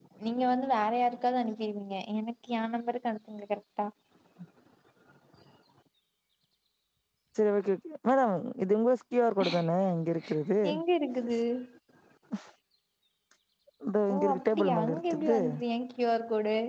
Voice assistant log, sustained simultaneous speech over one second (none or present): present